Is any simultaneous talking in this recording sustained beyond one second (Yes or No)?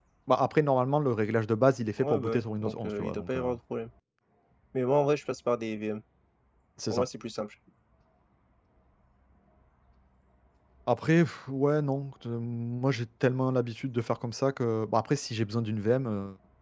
Yes